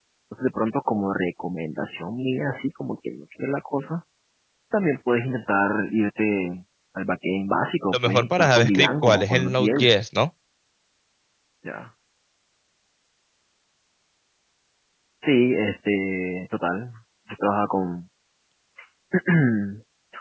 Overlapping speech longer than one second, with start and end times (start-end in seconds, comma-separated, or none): 7.9-9.9